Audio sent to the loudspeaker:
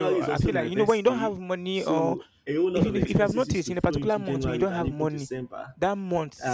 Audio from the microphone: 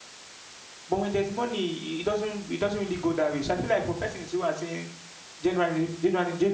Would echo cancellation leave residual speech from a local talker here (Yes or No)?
Yes